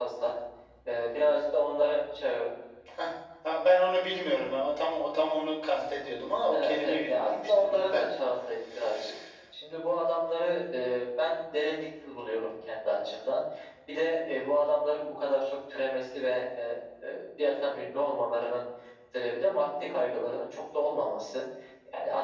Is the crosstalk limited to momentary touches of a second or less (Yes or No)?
No